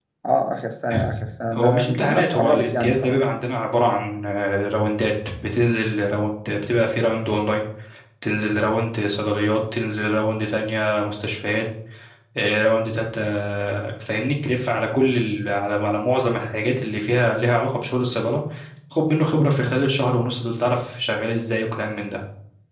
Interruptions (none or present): present